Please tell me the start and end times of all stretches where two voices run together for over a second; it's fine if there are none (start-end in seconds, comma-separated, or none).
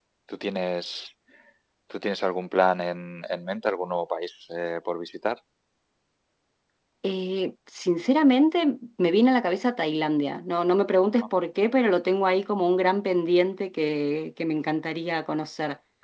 none